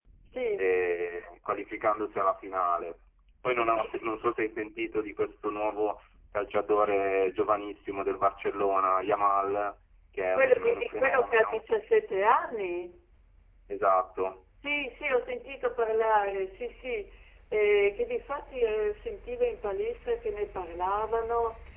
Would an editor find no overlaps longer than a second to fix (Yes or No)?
No